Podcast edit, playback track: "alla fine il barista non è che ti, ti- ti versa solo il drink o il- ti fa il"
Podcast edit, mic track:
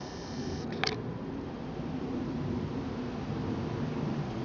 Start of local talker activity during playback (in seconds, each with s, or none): none